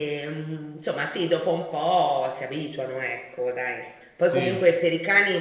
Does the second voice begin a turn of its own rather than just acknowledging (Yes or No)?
No